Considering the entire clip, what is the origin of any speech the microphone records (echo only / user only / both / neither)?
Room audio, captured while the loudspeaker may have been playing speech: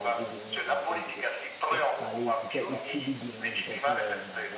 both